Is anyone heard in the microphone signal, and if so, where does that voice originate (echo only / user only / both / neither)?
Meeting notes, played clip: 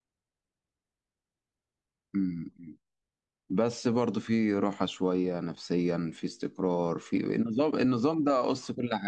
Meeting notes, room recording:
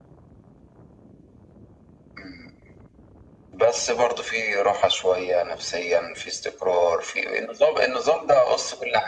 echo only